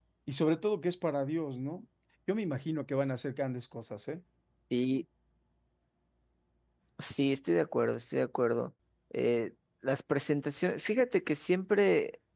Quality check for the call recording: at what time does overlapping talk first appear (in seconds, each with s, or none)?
none